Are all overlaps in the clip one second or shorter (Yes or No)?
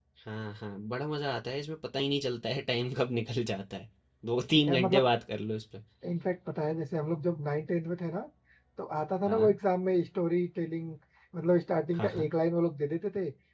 Yes